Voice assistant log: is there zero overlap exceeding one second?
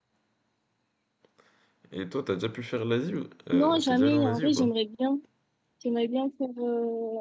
No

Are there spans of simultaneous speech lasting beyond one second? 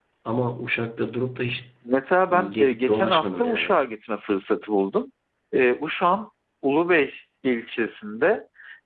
Yes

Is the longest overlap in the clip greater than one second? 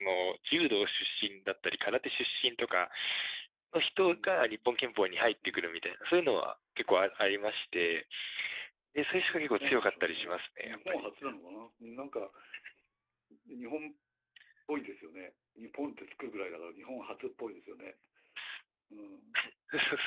Yes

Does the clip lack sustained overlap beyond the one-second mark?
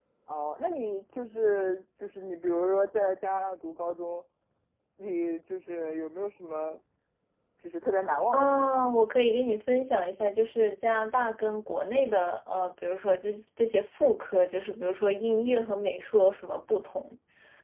Yes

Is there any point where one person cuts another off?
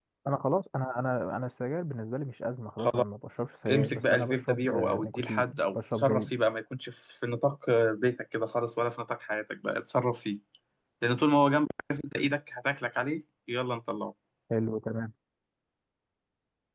Yes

